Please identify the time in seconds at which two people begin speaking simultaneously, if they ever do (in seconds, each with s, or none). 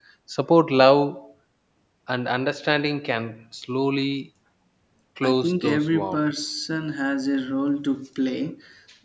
5.2 s